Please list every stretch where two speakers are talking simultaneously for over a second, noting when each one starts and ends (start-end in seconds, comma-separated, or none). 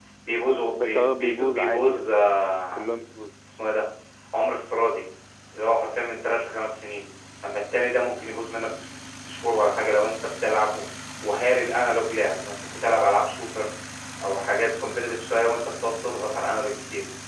0.8-2.0